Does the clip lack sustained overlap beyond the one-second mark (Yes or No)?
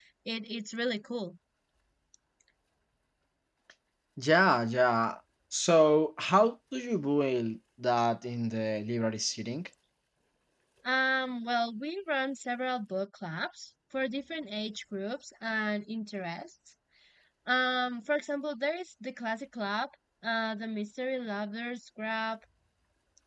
Yes